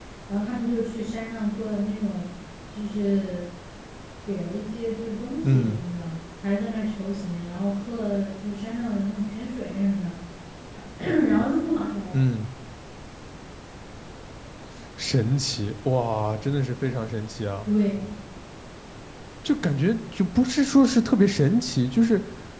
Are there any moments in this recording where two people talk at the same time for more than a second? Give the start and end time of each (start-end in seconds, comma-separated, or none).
none